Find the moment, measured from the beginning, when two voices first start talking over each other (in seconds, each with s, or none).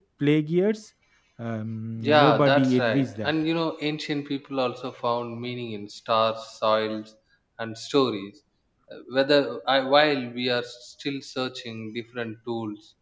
2.0 s